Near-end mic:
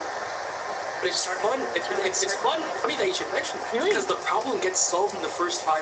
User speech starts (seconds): 3.7 s

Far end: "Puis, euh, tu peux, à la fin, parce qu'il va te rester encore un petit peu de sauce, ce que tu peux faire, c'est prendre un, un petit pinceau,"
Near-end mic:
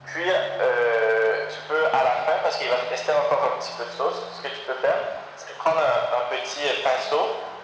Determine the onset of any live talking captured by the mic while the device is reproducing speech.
none

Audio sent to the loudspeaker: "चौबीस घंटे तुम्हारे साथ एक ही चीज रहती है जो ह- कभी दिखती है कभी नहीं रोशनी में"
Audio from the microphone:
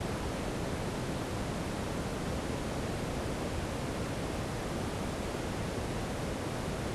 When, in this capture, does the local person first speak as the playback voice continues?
none

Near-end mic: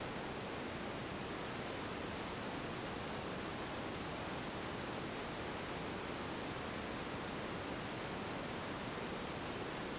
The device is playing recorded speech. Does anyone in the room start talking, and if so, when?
none

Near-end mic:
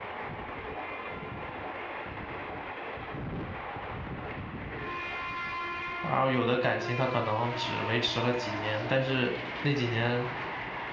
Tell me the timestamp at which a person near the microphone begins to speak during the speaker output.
6.0 s

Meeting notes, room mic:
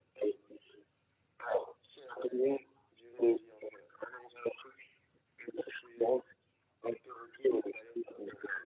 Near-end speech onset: none

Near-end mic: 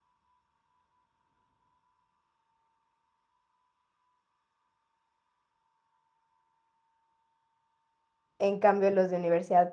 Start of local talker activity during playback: 8.4 s

